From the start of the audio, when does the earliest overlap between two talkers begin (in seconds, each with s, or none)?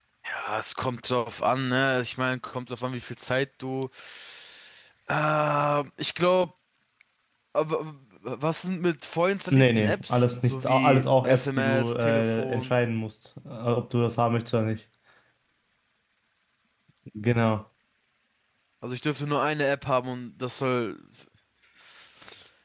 9.5 s